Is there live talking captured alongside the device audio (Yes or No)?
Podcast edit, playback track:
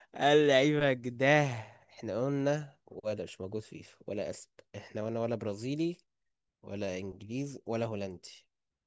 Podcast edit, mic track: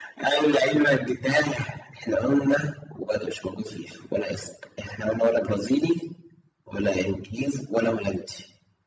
No